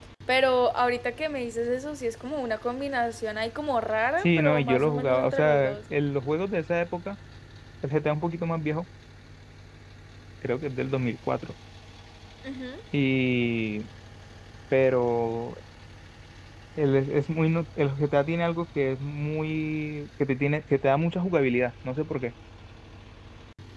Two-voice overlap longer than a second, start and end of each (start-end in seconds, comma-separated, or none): 4.2-5.8